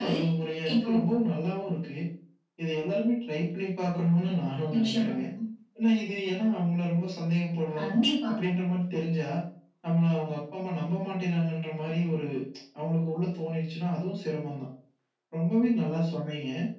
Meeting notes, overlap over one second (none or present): none